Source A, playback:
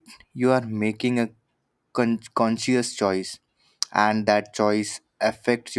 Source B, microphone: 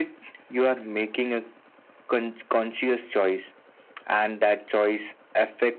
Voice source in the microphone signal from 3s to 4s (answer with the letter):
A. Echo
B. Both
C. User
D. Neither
A